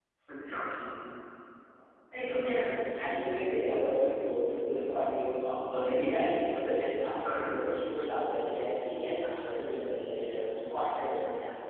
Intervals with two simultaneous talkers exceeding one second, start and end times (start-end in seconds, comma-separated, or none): 2.2-3.8